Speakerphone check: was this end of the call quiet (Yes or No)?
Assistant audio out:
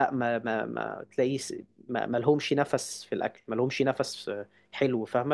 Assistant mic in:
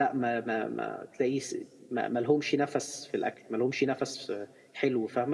Yes